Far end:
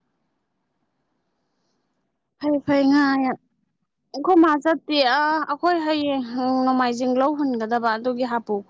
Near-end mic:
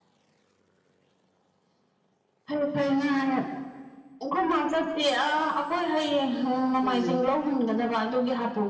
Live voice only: ꯎꯝ

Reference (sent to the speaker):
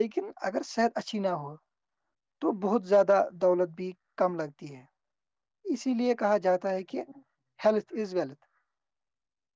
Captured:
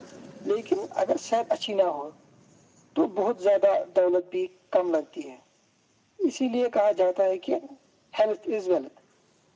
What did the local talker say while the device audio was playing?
none

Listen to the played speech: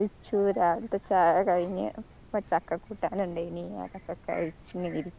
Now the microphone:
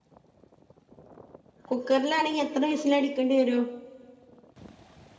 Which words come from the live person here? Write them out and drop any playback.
കുക്കറിലാണെങ്കി എത്ര വിസിലടിക്കേണ്ടി വരും

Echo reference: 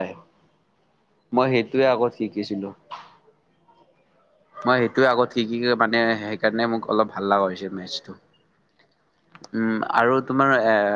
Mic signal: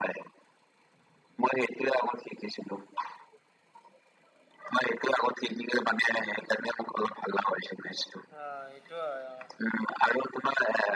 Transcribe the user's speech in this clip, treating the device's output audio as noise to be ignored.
অ', এইটো হয় অ'।

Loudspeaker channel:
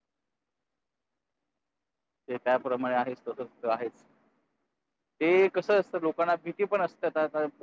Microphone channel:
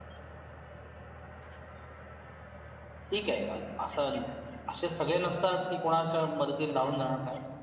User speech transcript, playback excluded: ठीक आहे असं असे सगळे नसतात की कोणाच्या मदतीला धावून जाणार नाही.

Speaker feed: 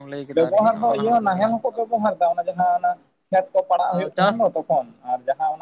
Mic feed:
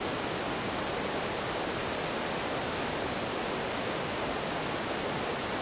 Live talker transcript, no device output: none

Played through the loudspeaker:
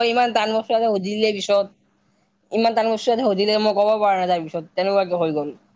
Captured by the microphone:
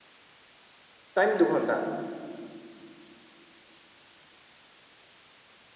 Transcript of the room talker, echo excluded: টাইম দুঘণ্টা।

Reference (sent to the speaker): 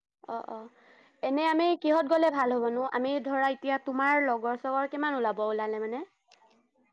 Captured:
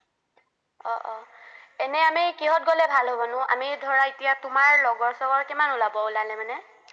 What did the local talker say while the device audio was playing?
none

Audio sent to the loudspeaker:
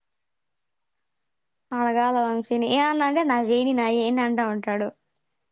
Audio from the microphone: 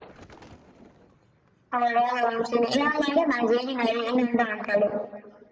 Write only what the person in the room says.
none

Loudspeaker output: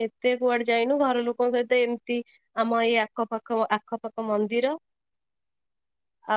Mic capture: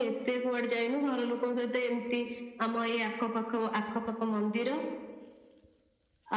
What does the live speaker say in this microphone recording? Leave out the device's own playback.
none

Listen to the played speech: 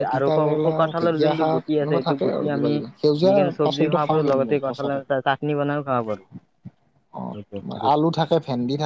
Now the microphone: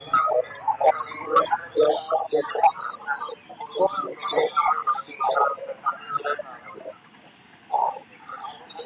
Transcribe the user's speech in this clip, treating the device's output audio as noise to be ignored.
none

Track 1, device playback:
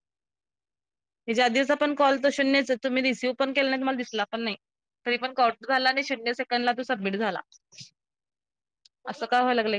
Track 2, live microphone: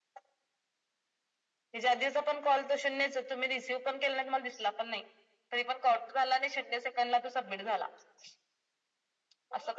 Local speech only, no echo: none

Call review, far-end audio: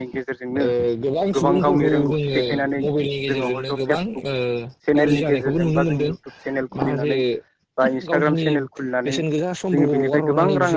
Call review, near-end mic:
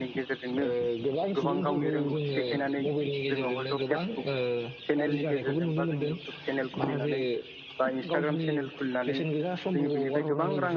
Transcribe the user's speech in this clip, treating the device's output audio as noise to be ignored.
none

